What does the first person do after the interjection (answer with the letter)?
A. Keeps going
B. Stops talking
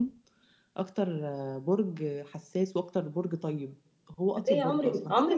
B